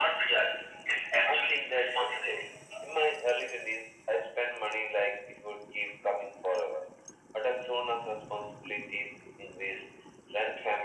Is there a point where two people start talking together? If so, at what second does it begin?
1.3 s

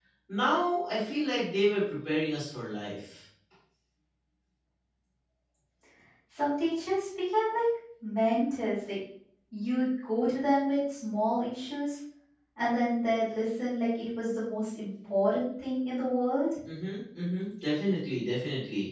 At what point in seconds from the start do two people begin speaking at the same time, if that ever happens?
none

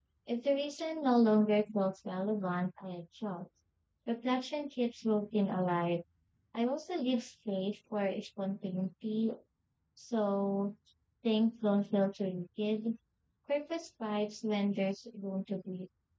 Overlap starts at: none

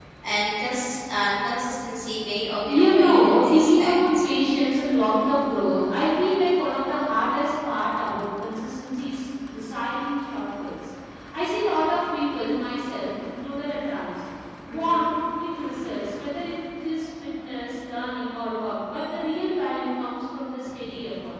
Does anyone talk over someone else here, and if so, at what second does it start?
2.7 s

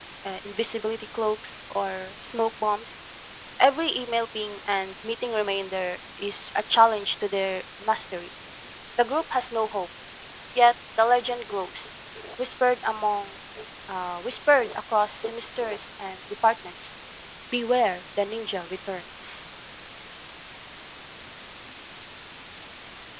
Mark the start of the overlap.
none

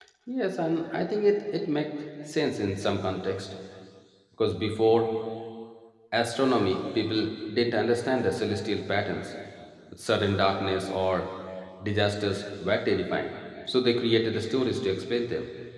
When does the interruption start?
none

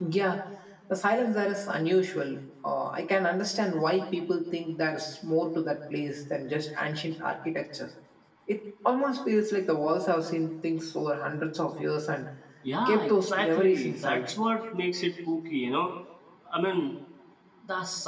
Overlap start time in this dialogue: 12.9 s

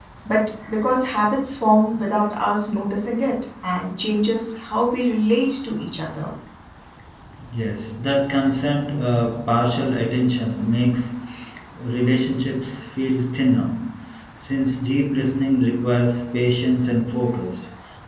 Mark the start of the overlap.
none

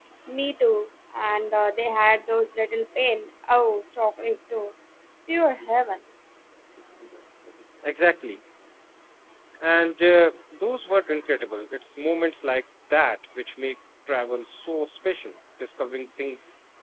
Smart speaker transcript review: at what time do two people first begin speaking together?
none

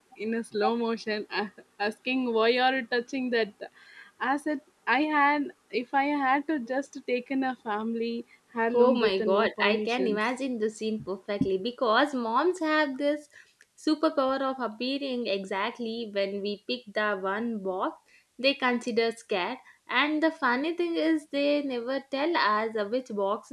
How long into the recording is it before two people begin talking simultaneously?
8.7 s

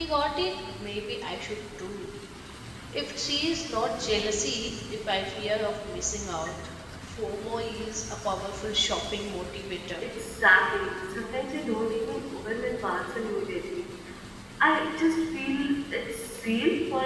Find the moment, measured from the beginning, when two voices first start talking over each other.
none

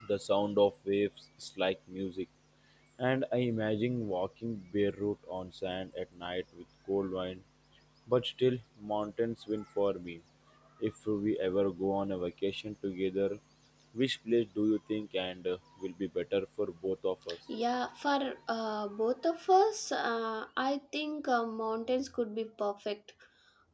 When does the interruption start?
none

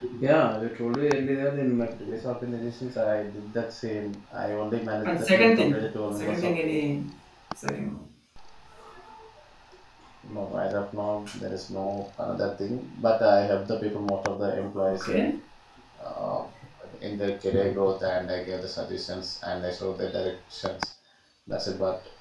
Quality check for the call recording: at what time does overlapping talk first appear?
5.0 s

